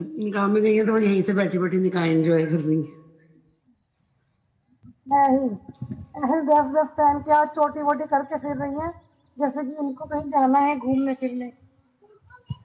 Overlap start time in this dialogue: none

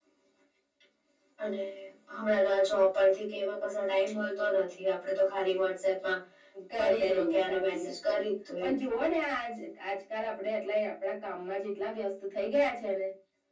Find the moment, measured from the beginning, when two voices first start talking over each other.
6.8 s

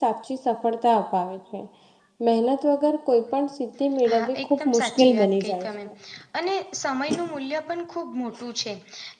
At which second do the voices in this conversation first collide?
4.0 s

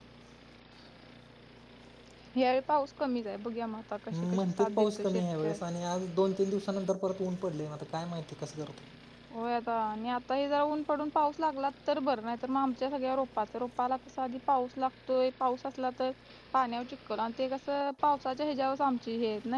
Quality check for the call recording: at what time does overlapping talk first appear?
4.1 s

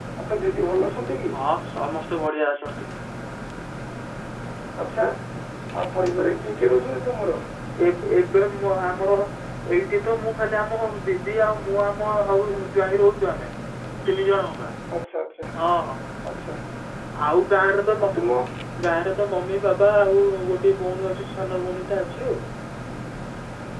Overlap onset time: none

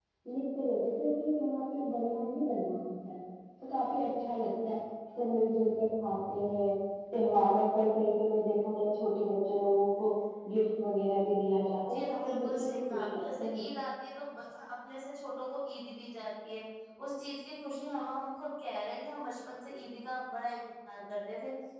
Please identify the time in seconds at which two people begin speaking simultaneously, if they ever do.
11.9 s

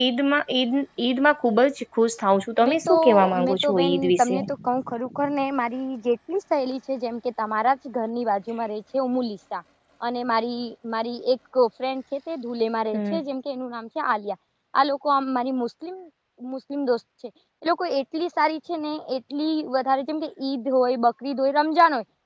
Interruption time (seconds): 2.6 s

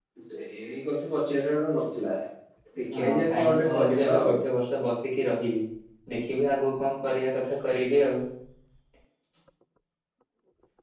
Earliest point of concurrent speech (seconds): 2.9 s

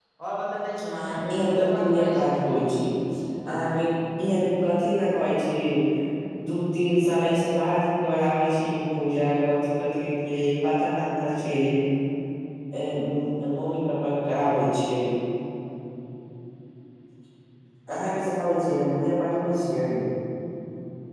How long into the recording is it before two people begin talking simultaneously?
1.0 s

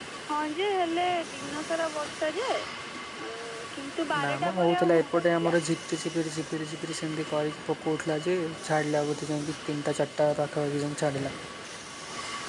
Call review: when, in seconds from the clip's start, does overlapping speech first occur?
4.1 s

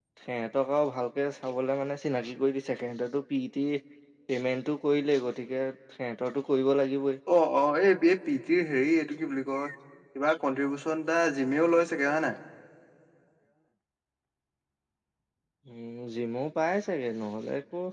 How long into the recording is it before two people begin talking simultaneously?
none

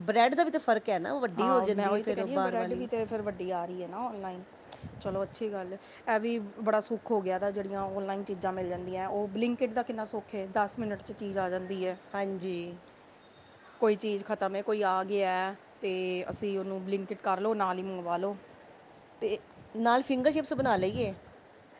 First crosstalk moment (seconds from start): 1.4 s

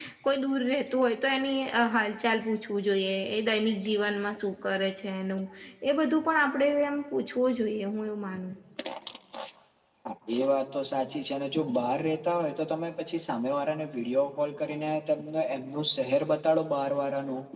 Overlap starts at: none

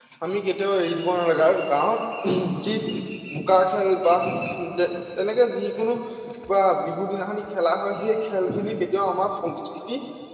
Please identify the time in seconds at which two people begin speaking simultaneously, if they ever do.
none

